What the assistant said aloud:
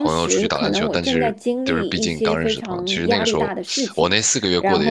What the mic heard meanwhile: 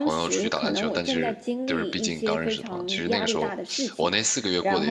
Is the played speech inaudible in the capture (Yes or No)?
No